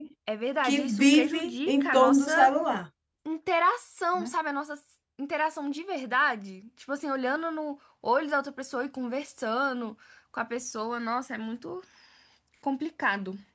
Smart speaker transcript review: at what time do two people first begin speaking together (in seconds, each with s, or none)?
0.6 s